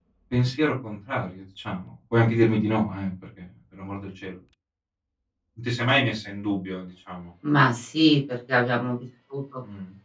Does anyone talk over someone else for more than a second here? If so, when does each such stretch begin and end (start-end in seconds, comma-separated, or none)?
none